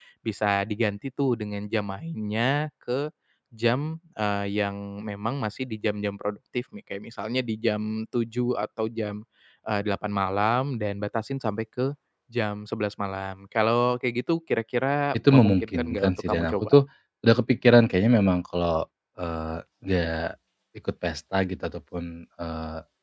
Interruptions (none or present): present